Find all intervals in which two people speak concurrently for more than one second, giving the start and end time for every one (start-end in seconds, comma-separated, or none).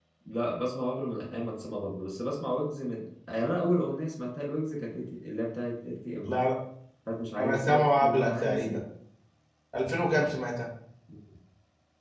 7.4-8.8